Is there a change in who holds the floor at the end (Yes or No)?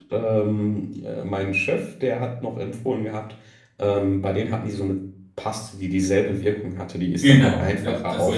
Yes